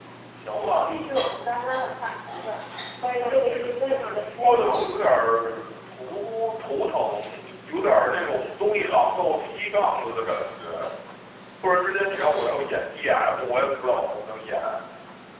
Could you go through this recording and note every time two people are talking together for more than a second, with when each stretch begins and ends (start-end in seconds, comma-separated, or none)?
3.2-4.9